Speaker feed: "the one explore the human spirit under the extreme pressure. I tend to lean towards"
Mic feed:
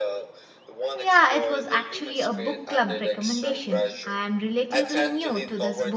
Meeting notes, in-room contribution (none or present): present